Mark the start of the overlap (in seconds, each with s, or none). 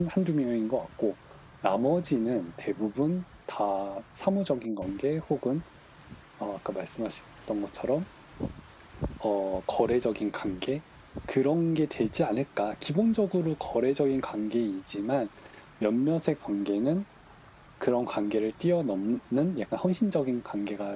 none